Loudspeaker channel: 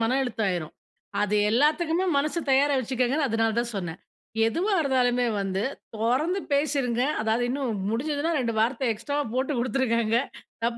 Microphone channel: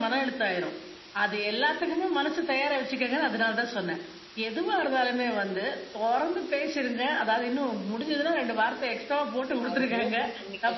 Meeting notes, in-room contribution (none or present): present